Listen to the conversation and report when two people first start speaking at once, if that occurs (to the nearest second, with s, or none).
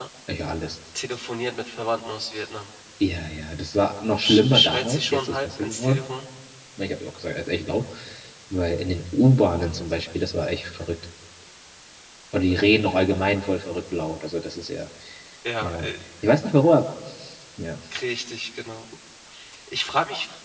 4 s